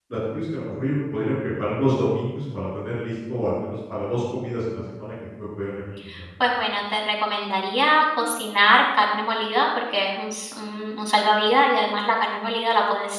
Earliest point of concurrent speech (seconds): none

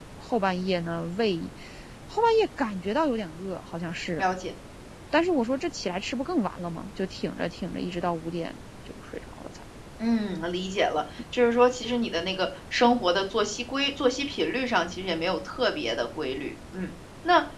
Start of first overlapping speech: none

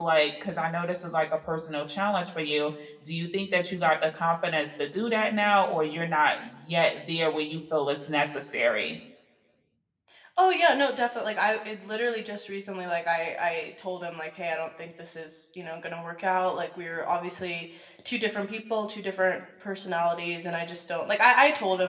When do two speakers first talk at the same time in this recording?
none

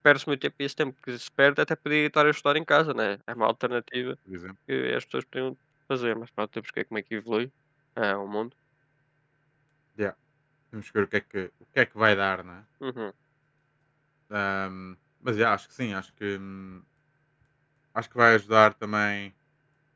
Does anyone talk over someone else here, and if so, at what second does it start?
none

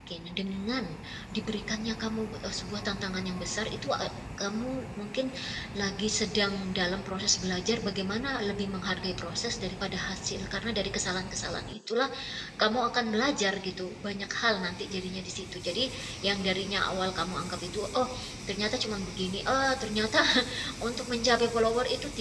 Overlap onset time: none

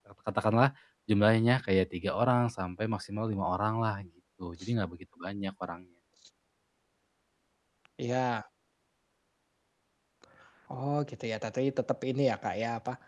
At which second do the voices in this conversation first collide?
none

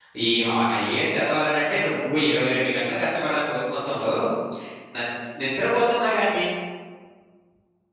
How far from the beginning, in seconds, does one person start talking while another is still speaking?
none

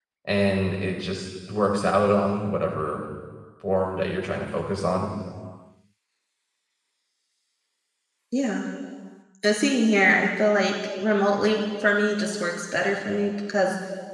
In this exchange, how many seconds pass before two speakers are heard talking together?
none

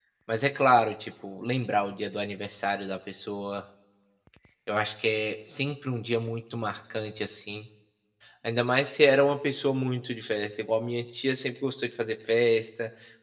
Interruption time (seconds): none

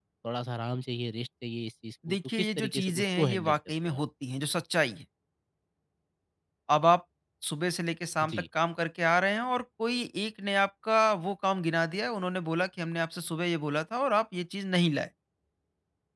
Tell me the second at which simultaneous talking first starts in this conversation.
2.0 s

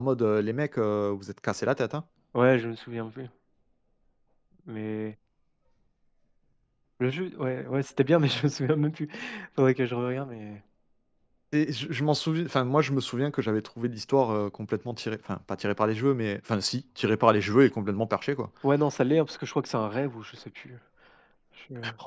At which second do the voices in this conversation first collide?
none

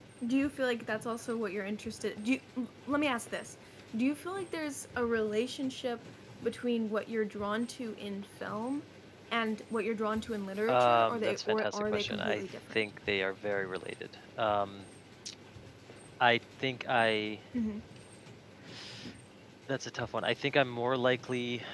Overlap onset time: 10.7 s

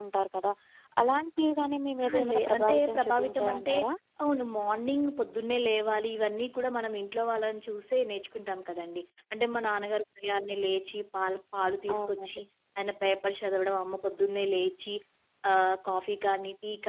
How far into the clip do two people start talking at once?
2.0 s

